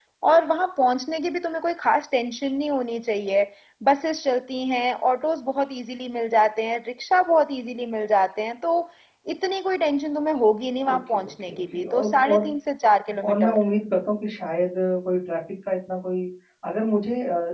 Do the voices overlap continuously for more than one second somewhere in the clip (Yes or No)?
Yes